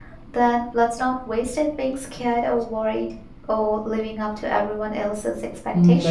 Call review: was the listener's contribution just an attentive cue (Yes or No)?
No